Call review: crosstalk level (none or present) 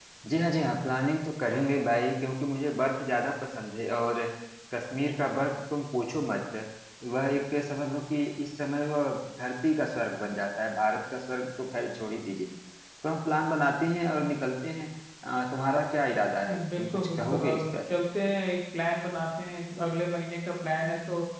present